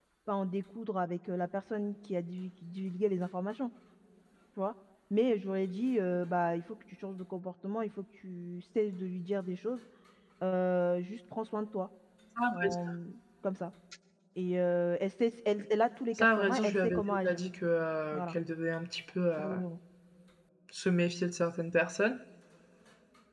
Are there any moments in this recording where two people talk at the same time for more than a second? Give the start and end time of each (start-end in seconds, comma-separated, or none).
16.1-17.4